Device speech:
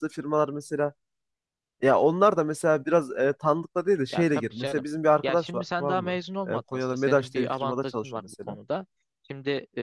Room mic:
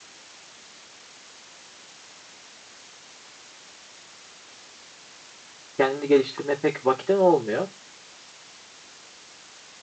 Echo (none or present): none